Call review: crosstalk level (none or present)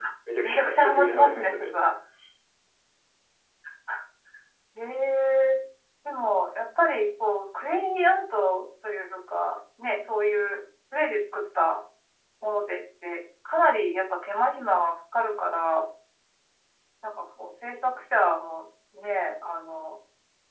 present